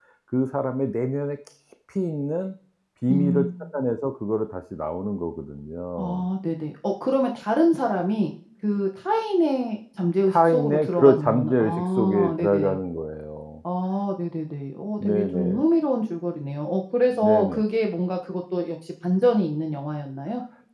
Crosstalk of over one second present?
Yes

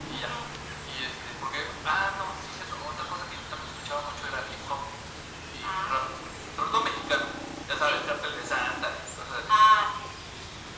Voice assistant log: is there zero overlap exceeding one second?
Yes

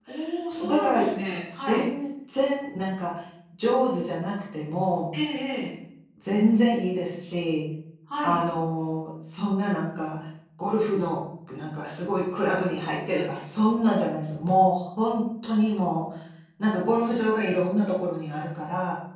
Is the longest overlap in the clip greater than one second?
No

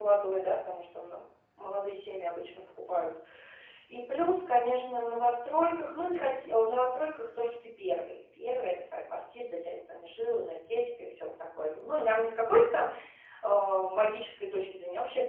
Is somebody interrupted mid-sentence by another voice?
No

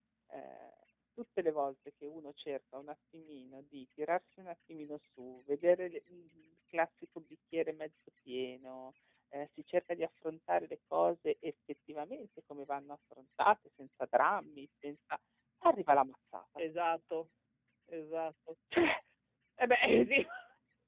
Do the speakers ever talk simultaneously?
No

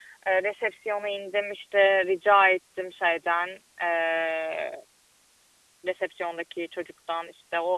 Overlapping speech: No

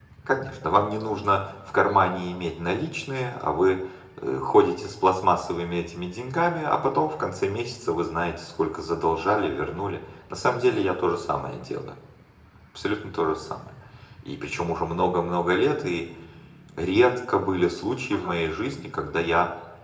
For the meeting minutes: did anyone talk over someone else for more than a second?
No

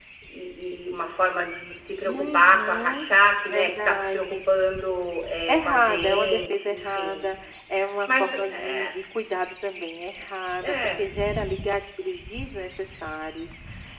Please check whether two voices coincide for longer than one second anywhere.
Yes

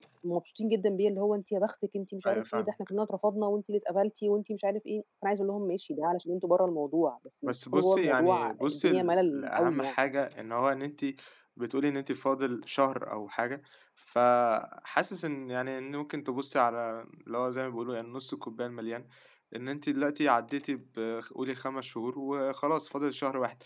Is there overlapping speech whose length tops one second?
Yes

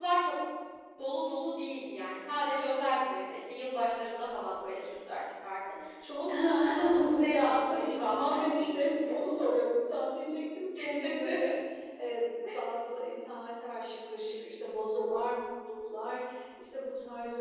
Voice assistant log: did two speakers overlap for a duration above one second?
Yes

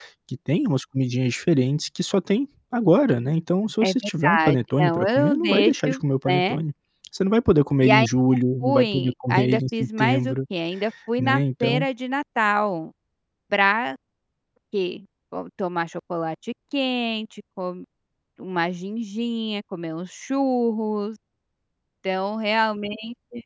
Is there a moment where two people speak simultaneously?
Yes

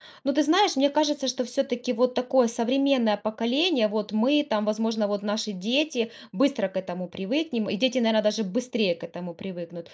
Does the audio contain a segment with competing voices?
No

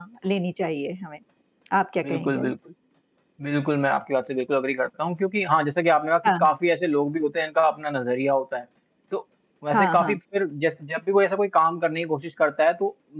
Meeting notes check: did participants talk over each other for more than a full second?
No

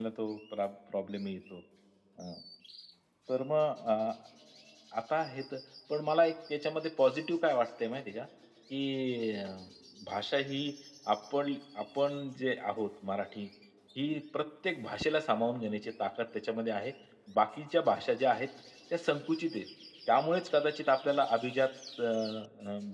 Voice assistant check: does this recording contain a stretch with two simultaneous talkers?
No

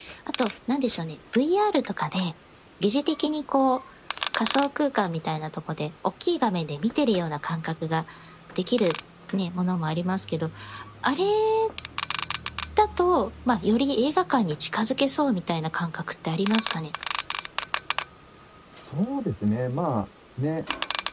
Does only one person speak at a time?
Yes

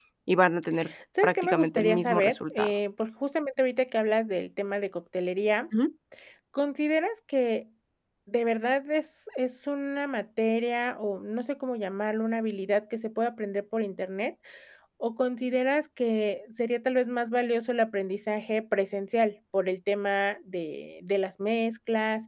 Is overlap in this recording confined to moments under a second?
No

